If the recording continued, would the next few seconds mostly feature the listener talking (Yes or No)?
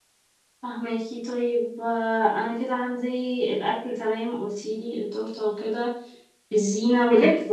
No